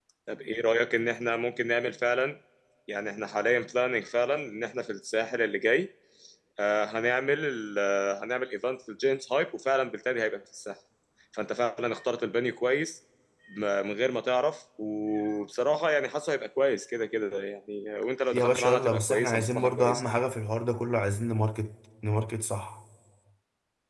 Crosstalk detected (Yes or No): Yes